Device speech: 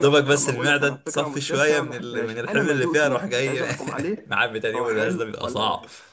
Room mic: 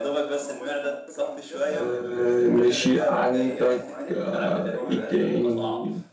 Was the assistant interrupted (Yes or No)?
Yes